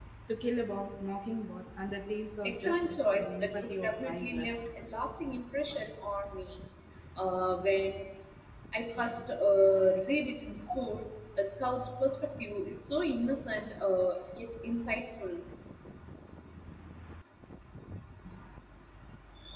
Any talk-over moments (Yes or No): Yes